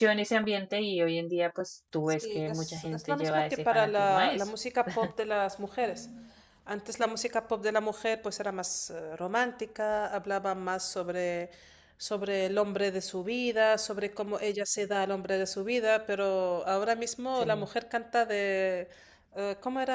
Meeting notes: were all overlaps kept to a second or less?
No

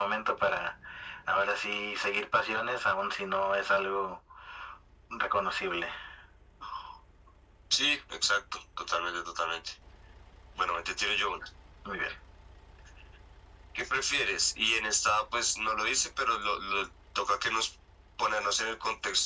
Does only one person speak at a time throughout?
Yes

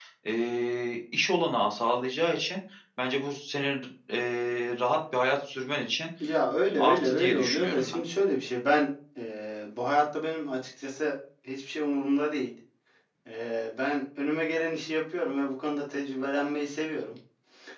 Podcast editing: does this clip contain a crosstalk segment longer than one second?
Yes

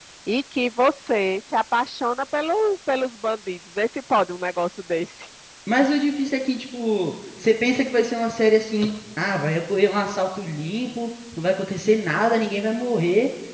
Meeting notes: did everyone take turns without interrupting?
Yes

